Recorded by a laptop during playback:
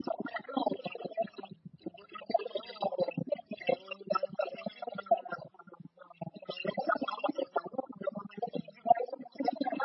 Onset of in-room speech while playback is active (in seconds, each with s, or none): none